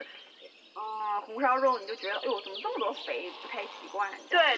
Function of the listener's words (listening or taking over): taking over